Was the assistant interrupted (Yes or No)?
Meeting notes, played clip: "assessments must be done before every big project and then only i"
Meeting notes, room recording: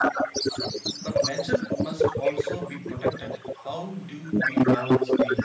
Yes